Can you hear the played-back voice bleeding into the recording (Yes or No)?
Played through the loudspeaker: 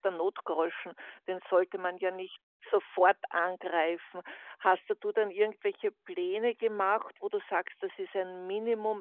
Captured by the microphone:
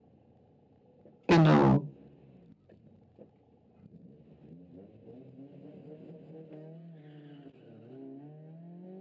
No